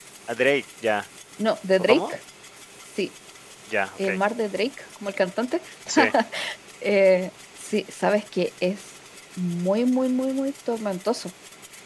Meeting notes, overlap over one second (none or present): none